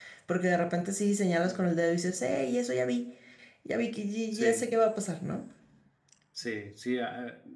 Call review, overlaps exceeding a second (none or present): none